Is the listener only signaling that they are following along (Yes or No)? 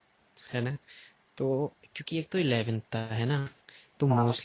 Yes